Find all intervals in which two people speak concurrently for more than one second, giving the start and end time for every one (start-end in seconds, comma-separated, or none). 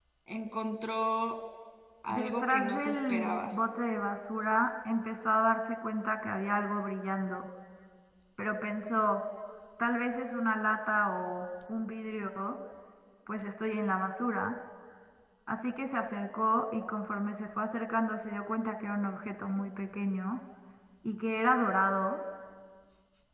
2.1-3.4